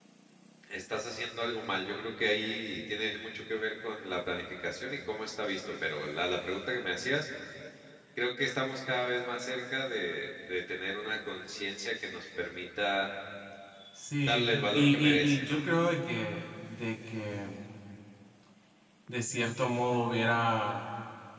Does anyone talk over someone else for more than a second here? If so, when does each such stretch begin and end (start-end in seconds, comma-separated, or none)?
14.3-15.6